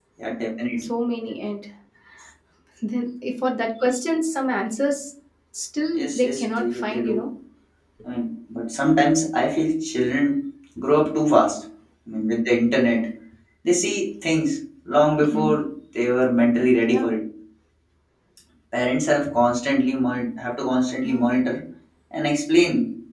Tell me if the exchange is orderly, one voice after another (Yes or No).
No